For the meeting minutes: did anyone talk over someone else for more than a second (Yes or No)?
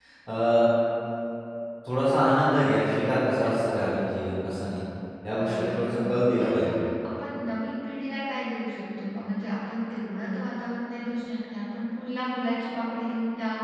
Yes